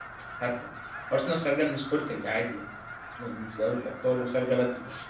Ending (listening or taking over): listening